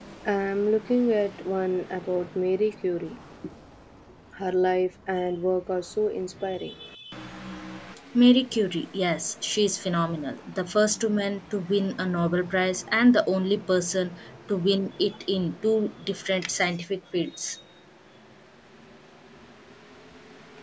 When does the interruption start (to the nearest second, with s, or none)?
none